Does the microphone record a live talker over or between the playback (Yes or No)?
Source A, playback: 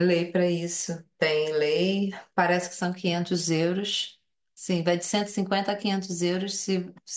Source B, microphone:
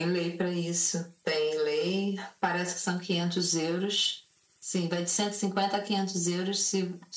No